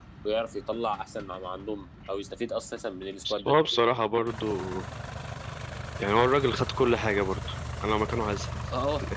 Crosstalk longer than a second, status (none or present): none